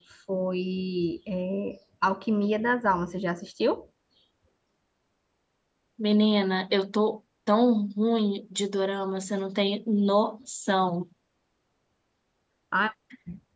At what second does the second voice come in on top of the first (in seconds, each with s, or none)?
none